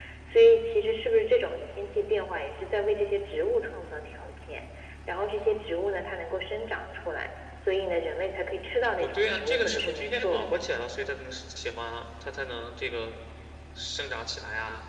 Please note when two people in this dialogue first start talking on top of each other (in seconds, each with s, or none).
9.0 s